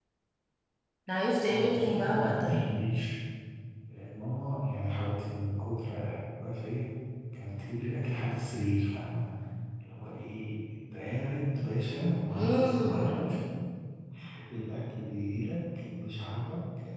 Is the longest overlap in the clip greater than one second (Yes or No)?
Yes